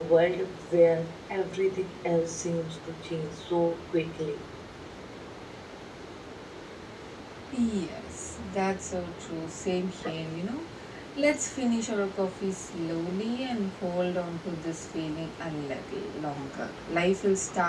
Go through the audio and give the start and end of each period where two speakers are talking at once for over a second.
none

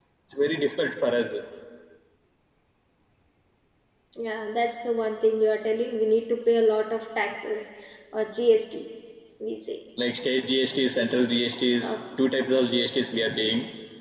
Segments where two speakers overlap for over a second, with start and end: none

